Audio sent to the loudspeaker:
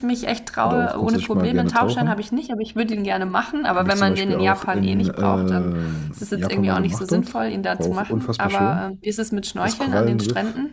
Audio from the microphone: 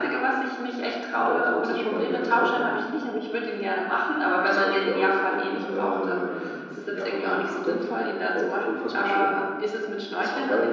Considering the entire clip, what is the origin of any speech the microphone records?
echo only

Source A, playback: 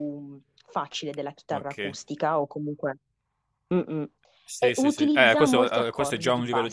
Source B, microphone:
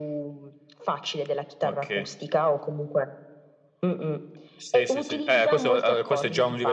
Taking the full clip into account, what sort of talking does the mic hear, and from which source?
echo only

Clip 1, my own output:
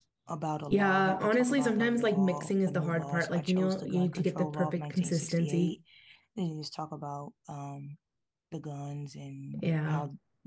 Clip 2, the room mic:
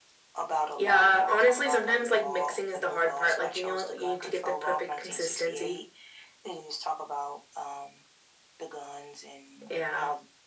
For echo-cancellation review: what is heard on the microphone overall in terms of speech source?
echo only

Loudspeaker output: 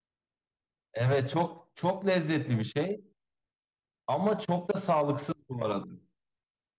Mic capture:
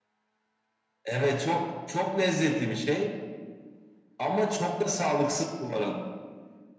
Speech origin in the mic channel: echo only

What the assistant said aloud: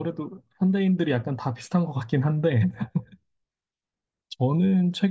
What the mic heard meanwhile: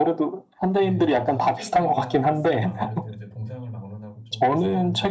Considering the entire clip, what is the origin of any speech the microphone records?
both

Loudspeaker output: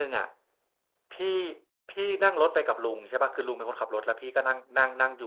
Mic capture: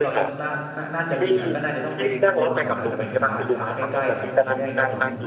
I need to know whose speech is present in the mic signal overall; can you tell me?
both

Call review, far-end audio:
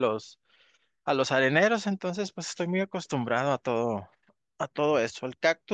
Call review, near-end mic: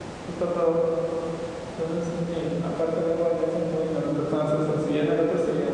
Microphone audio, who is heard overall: user only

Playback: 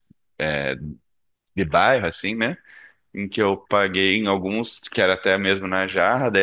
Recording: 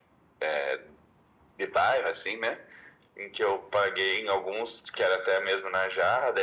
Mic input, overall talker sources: echo only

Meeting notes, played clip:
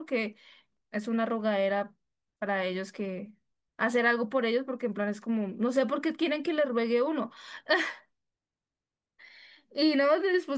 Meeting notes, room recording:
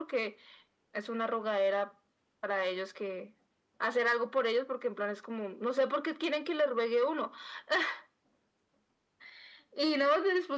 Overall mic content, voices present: echo only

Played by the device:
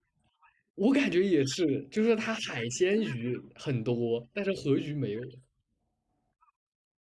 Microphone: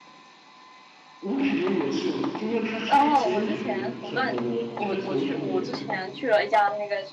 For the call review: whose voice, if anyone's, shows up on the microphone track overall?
both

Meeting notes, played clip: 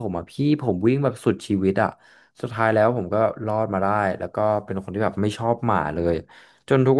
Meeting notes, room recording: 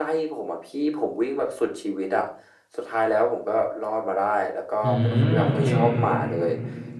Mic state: both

